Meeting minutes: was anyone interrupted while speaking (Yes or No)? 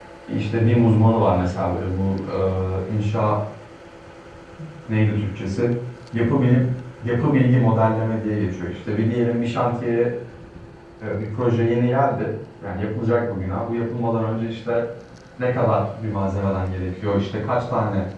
No